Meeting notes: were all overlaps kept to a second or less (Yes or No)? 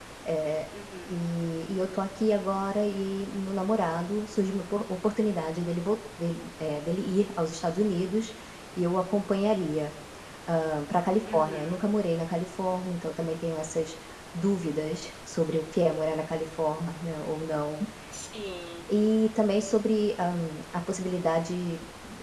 Yes